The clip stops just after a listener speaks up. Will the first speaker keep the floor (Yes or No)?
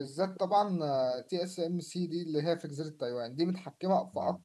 Yes